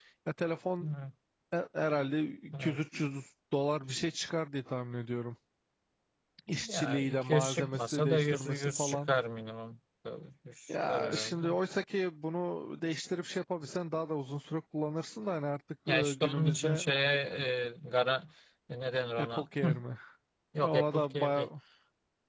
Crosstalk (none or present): present